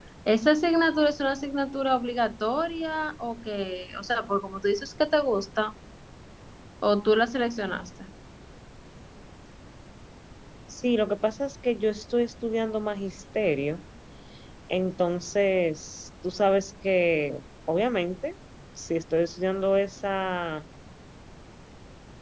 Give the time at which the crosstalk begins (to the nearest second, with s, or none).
none